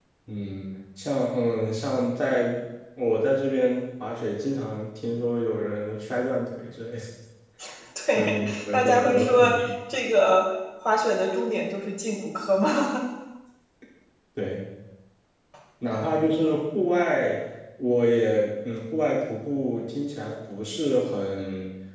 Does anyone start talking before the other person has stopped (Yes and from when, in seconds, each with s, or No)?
Yes, from 8.2 s